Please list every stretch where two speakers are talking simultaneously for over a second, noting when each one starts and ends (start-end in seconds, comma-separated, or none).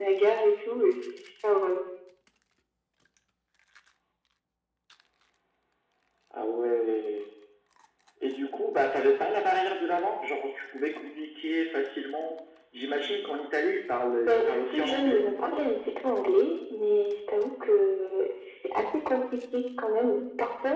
14.3-15.5